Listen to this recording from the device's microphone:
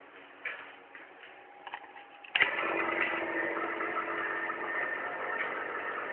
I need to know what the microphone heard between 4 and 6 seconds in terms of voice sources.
neither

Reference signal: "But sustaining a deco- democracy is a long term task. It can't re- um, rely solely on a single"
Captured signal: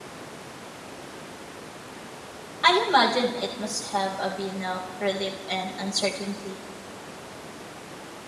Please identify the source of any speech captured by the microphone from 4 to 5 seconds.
user only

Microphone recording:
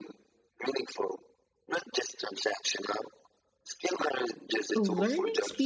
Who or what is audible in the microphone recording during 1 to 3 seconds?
echo only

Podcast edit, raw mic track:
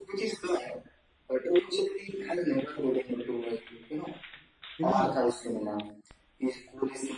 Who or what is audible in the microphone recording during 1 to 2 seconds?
echo only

